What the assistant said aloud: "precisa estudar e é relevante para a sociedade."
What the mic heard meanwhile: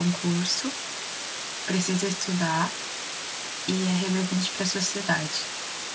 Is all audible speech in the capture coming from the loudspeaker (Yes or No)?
Yes